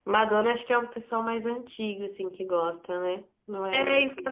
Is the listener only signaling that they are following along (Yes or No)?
No